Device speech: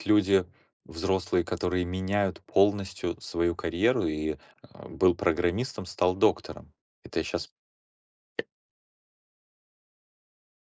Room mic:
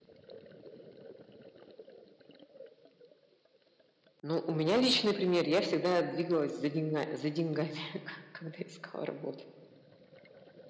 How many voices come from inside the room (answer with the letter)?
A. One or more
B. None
A